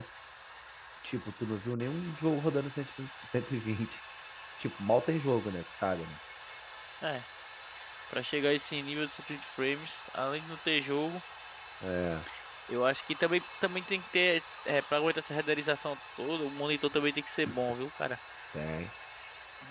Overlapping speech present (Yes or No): No